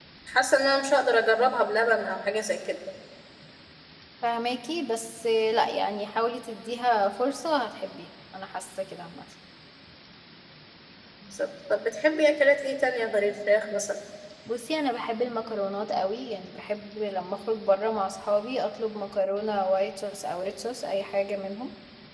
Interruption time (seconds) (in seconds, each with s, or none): none